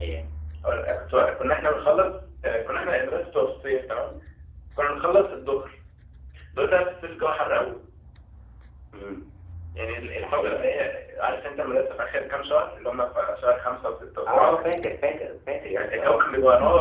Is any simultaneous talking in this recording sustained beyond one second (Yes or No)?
No